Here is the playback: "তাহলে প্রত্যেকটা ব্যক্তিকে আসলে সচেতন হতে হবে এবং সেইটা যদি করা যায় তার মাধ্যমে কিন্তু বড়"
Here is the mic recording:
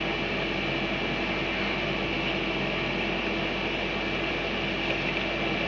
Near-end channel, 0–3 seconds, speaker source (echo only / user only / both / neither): neither